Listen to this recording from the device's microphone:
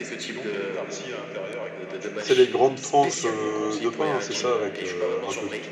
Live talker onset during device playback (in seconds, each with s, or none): 2.2 s